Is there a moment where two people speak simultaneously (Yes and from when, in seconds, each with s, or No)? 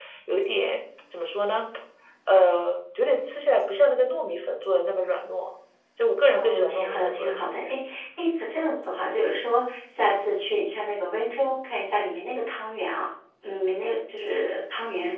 Yes, from 6.3 s